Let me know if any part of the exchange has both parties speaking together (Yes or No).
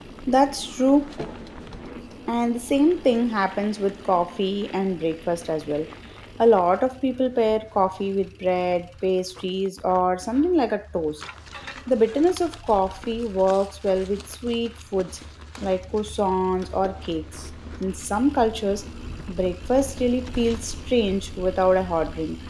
No